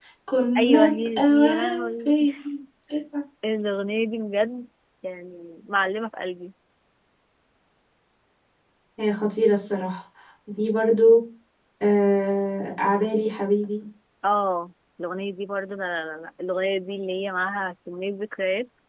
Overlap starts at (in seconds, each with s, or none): 0.6 s